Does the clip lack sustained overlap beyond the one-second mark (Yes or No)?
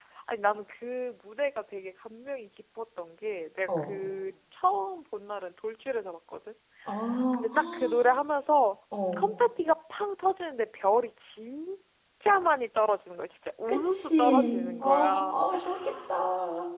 No